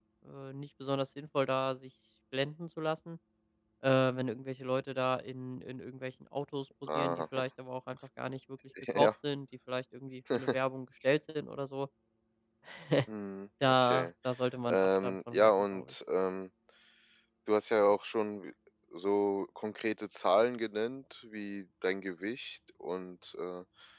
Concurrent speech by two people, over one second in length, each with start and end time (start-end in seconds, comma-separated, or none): 14.7-15.9